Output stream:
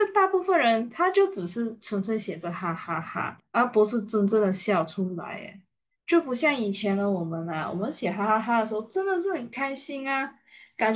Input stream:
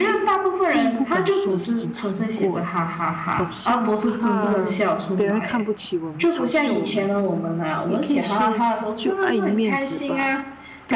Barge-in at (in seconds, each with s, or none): 0.7 s